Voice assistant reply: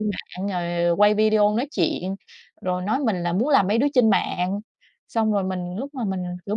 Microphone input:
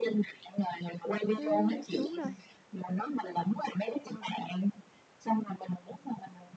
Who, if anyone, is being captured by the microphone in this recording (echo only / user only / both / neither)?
both